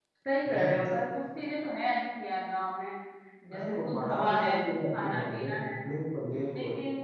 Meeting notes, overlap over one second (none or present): present